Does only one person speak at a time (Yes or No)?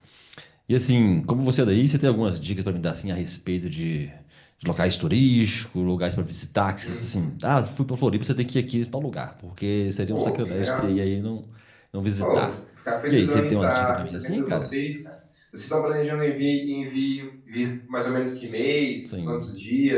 No